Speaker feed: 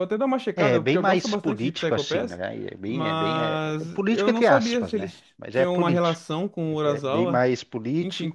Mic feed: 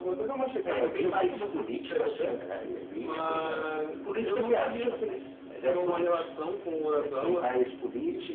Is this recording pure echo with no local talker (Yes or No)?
Yes